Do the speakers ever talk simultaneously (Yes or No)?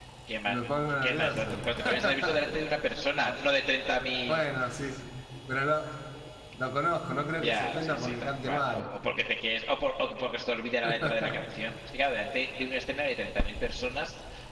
Yes